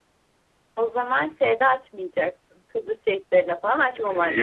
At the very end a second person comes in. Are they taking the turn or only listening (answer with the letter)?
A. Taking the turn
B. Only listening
A